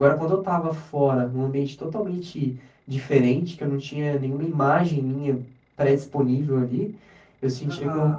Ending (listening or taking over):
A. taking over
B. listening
B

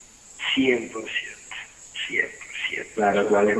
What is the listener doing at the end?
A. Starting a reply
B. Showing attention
A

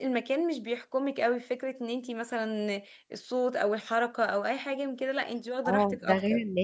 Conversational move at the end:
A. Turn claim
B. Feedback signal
A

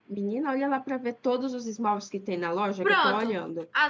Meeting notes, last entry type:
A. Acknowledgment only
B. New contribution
B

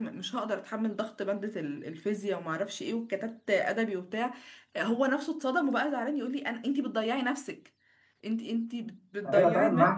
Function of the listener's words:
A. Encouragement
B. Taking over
B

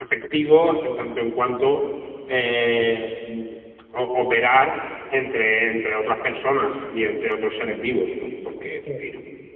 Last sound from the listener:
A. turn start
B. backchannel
B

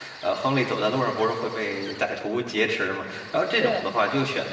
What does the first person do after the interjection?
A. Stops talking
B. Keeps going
B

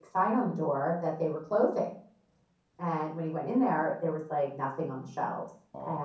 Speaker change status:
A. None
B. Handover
A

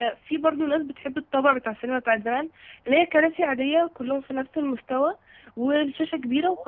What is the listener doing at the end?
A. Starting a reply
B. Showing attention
B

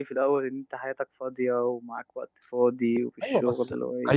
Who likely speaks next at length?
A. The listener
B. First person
A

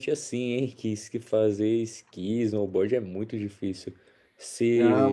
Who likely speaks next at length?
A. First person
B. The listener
B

